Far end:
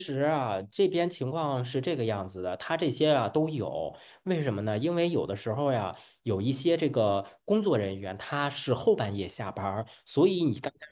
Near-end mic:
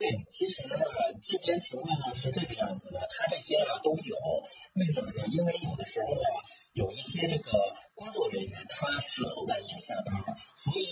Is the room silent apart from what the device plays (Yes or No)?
Yes